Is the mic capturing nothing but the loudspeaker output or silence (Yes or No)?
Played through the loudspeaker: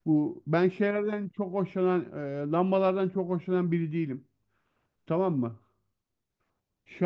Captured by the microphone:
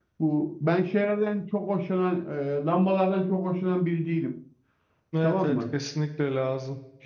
No